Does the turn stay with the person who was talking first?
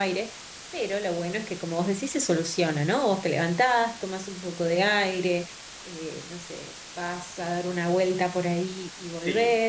Yes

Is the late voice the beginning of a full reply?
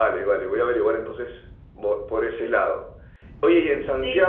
No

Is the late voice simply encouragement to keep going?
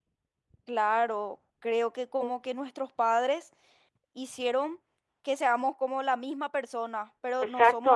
Yes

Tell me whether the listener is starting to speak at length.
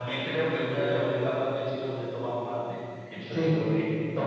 Yes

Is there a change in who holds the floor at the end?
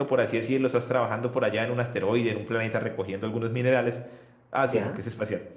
No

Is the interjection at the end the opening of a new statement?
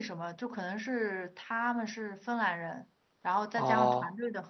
No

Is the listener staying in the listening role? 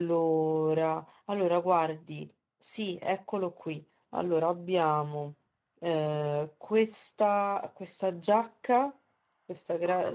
Yes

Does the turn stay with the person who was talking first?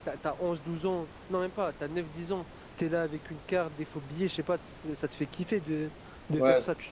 Yes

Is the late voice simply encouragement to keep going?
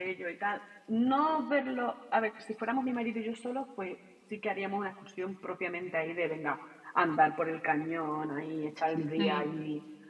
Yes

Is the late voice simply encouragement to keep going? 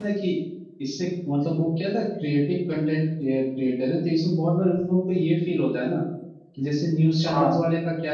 Yes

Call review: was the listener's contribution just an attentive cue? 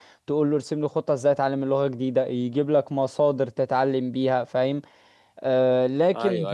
No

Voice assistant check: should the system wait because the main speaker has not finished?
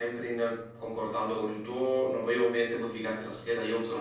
Yes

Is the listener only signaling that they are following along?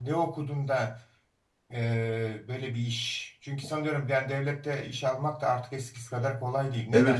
No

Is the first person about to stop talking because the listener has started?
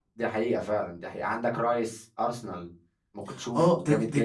Yes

